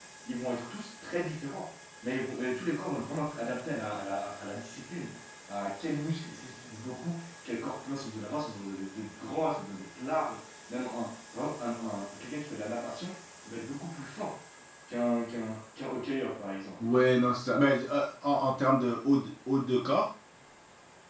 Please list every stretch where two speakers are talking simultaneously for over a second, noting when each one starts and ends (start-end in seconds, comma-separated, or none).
none